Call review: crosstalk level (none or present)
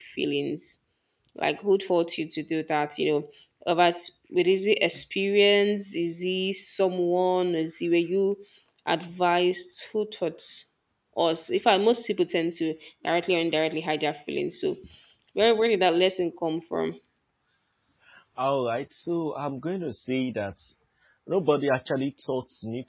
none